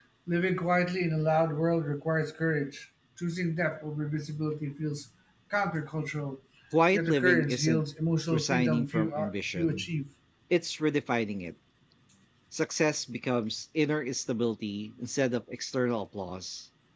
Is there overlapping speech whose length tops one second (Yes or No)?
Yes